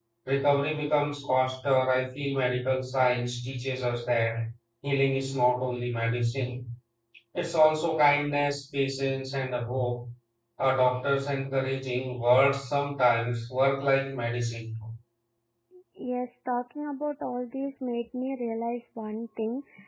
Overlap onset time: none

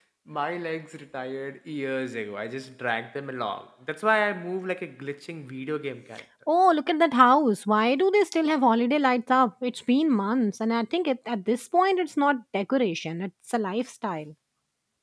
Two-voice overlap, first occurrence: none

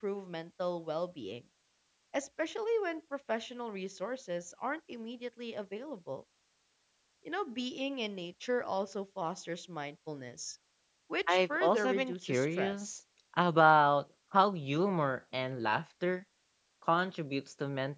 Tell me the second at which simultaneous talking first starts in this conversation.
11.3 s

